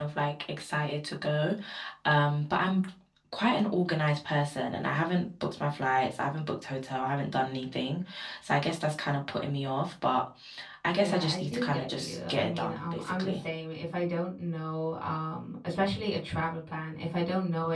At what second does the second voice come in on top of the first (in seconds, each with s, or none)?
11.0 s